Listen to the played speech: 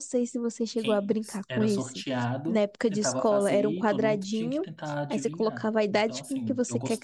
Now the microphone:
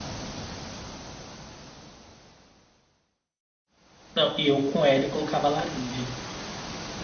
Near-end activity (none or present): present